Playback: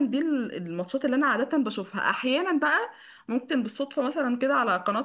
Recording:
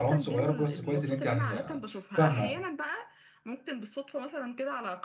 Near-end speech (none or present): present